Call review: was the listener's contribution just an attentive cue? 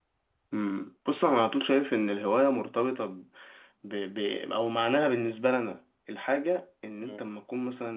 Yes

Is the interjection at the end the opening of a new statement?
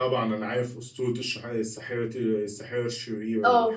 Yes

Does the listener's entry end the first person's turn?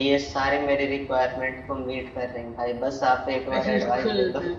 Yes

